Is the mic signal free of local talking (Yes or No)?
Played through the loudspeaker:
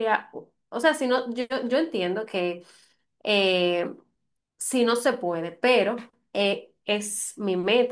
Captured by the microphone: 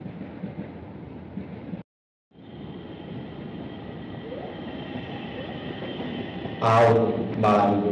No